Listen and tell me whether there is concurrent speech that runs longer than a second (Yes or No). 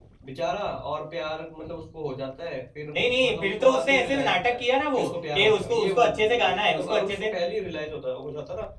Yes